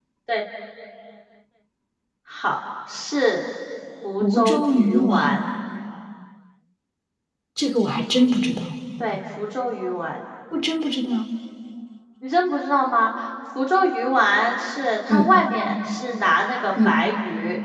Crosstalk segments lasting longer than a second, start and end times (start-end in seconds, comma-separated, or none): 4.2-5.5